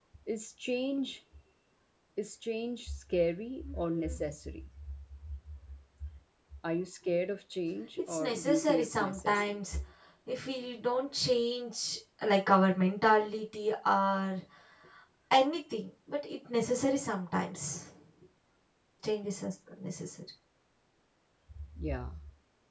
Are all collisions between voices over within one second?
No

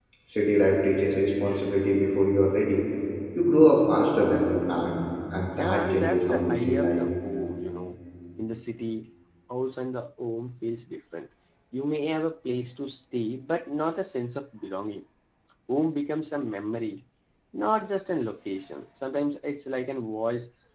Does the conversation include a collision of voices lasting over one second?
Yes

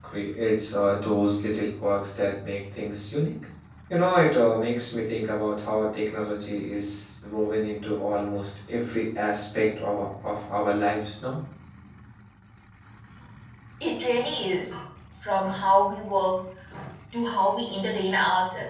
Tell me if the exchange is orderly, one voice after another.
Yes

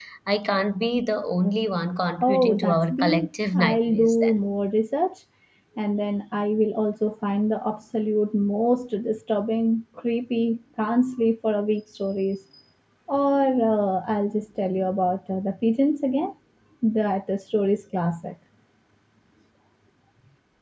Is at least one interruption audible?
Yes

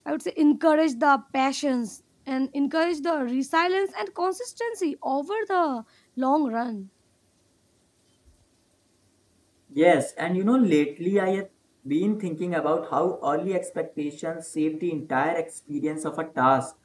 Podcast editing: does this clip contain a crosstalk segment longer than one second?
No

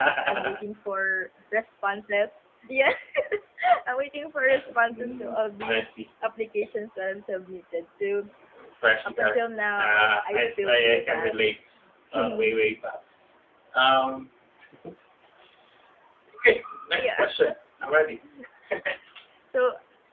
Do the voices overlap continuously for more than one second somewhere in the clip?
Yes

